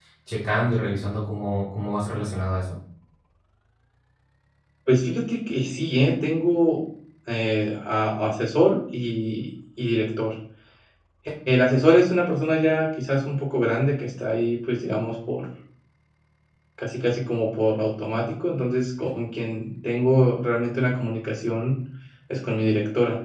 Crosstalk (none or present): none